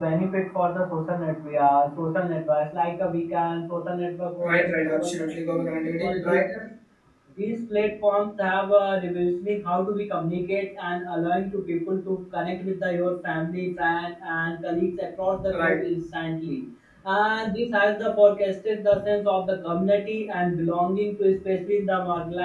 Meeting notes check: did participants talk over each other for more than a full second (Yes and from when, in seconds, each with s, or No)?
Yes, from 4.5 s